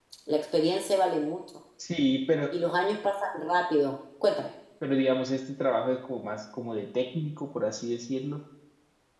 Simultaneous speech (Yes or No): No